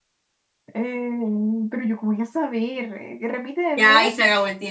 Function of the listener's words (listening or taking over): taking over